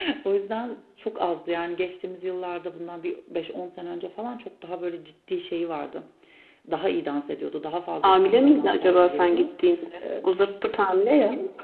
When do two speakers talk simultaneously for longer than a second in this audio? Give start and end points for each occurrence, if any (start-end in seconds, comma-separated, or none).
8.0-9.5